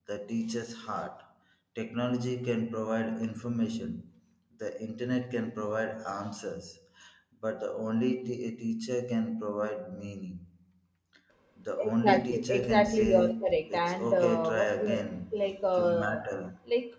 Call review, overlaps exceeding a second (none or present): present